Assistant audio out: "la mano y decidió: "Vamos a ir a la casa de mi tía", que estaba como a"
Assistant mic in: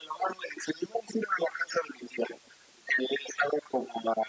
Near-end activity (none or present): none